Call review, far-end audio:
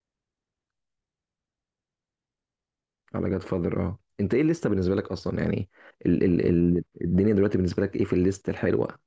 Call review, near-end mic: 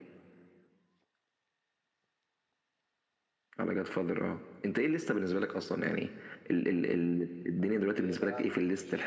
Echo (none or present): present